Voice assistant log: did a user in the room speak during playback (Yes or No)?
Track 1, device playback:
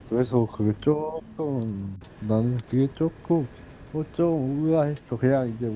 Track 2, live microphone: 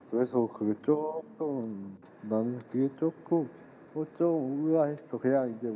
No